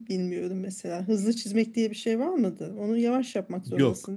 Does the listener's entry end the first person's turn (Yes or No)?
Yes